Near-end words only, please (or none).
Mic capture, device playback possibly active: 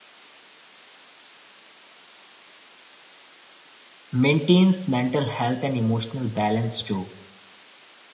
maintains mental health and emotional balance, too.